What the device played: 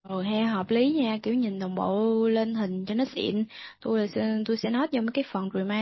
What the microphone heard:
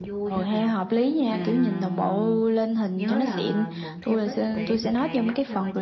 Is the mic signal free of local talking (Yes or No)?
No